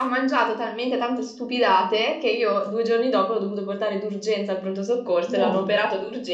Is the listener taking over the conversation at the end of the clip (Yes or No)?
No